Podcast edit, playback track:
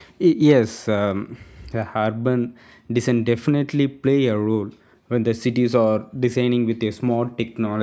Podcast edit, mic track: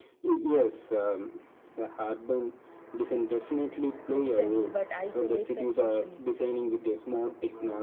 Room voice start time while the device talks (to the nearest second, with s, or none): 4 s